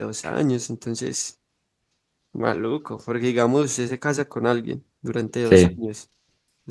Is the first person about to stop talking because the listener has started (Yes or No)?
No